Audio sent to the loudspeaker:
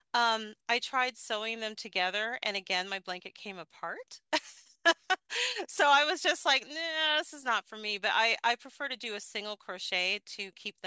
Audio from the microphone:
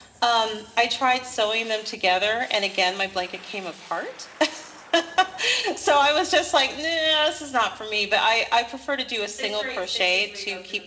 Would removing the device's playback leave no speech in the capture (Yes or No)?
No